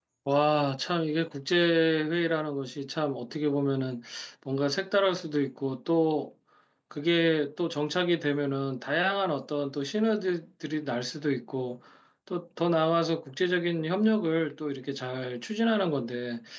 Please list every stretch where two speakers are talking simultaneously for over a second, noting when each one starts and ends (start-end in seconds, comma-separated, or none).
none